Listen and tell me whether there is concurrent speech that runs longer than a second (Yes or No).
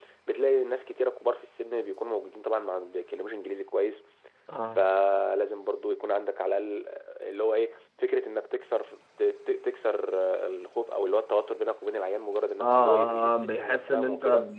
Yes